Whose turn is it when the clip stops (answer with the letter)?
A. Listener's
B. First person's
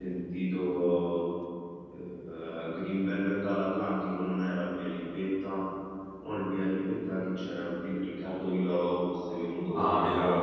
A